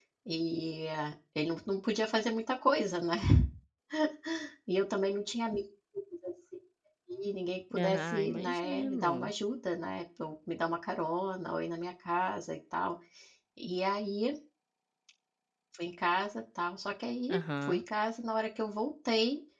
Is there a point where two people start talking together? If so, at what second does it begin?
8 s

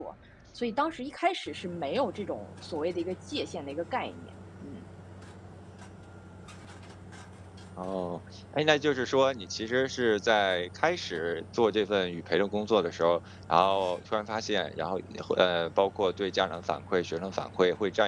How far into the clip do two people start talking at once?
none

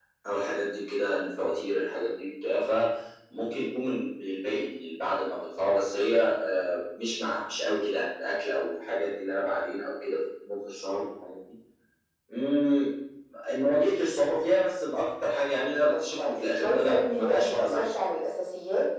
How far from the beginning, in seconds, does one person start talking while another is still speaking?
16 s

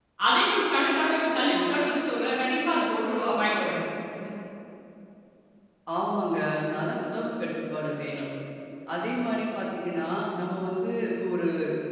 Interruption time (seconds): none

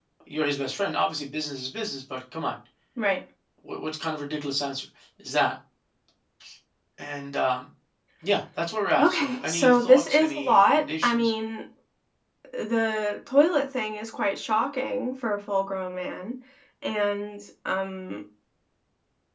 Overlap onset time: 9 s

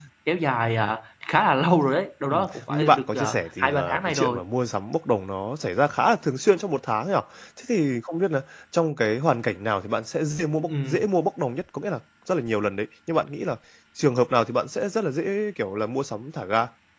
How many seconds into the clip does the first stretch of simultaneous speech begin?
2 s

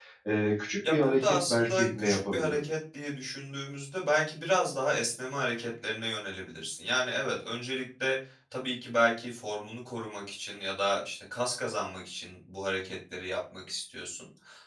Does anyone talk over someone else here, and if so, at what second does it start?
1 s

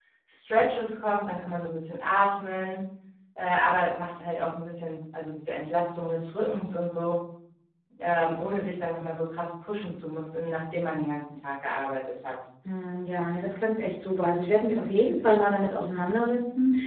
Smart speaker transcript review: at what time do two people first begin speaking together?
none

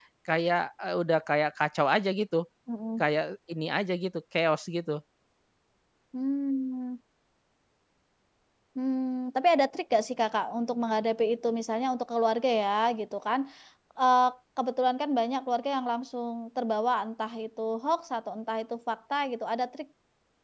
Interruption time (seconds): none

